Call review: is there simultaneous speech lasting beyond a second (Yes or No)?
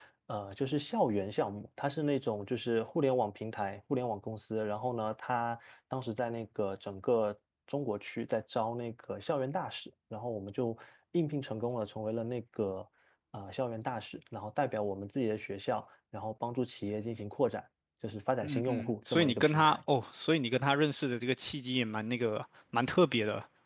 Yes